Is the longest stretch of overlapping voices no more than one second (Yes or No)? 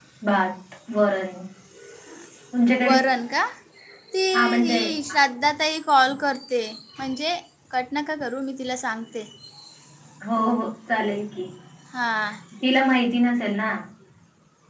Yes